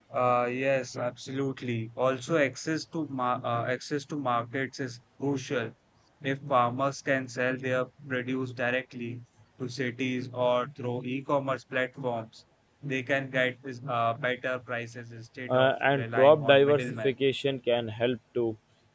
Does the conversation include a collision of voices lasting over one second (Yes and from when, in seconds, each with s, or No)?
Yes, from 15.5 s